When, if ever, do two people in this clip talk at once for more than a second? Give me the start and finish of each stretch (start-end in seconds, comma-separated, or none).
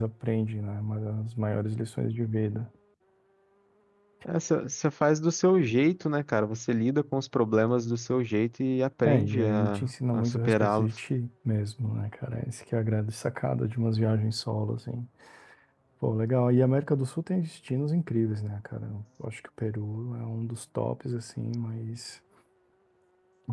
9.0-10.9